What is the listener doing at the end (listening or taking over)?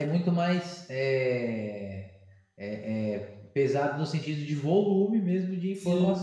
taking over